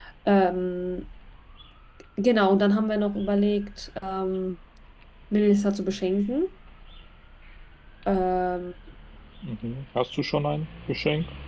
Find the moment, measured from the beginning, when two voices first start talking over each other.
none

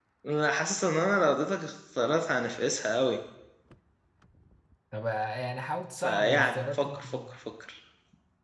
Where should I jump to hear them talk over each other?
6.0 s

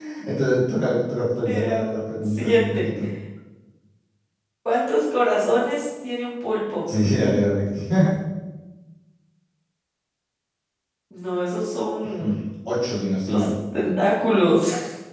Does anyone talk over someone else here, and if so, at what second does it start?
1.4 s

